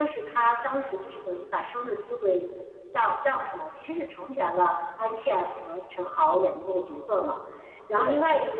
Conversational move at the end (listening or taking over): listening